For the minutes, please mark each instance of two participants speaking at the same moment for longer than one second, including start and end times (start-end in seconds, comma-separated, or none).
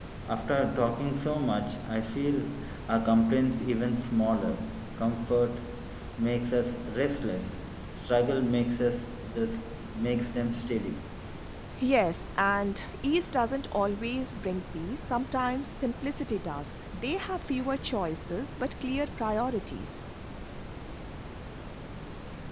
none